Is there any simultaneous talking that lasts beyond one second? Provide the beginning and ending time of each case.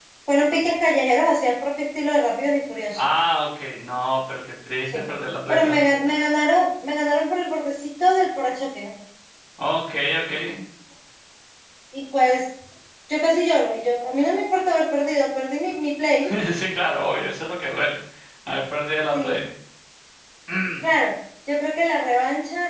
none

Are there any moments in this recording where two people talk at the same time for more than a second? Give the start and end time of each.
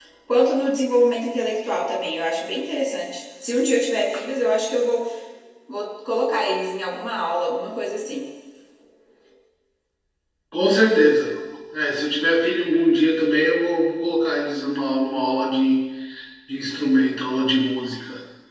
none

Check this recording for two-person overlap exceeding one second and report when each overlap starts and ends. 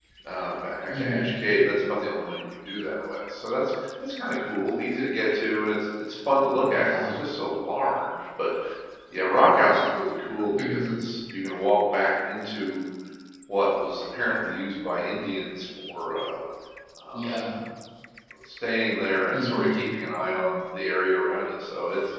none

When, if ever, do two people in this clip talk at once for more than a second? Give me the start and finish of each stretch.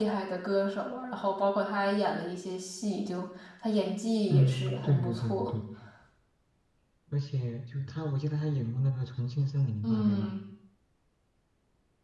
4.3-5.6

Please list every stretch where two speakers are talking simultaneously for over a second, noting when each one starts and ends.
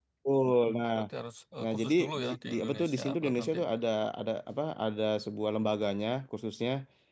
1.6-3.6

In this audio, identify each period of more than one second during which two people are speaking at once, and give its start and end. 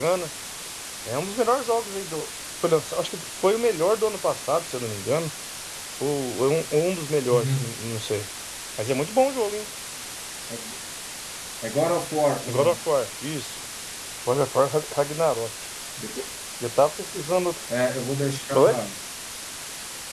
none

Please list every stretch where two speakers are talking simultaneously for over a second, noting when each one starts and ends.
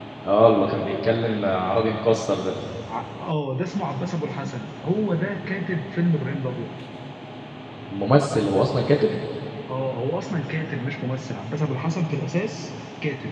none

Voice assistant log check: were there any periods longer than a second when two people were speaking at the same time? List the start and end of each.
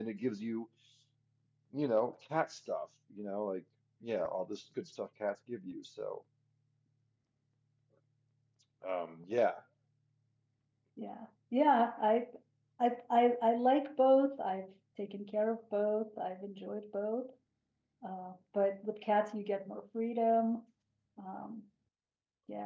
none

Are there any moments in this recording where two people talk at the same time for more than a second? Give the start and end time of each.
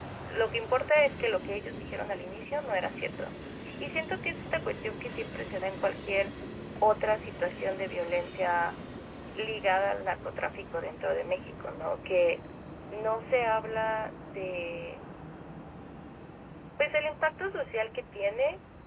none

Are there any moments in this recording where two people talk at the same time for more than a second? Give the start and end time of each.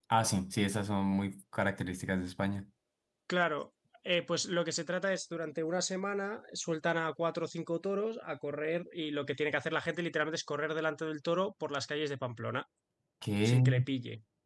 none

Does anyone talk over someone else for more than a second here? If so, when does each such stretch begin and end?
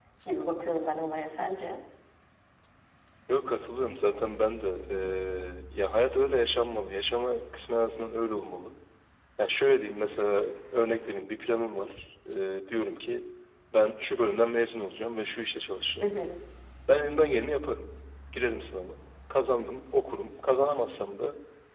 none

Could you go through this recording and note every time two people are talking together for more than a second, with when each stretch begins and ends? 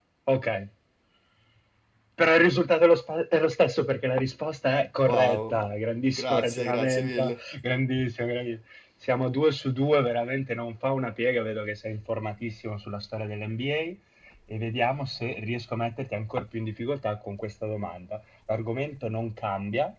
6.2-7.4

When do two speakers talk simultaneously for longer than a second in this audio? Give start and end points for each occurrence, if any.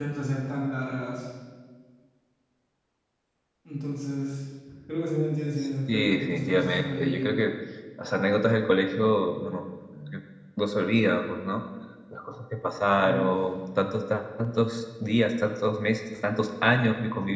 5.9-7.3

